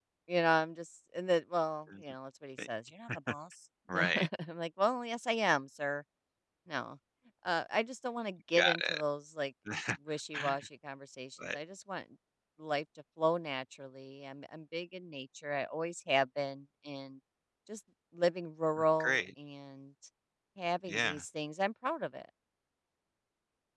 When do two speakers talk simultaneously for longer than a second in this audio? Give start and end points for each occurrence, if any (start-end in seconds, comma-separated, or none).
none